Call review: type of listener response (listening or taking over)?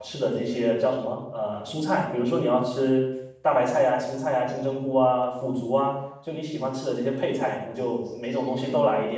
taking over